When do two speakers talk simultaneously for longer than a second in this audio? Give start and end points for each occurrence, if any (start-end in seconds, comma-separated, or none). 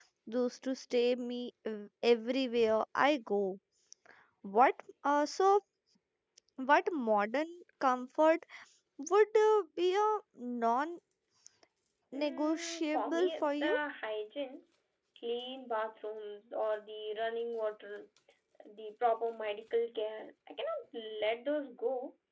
12.1-13.8